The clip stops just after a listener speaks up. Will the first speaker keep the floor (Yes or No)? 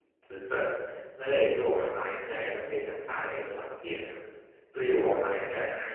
Yes